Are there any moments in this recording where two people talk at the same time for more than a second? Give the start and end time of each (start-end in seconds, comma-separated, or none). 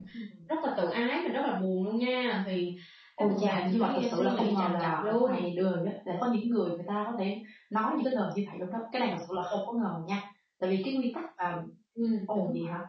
3.2-5.5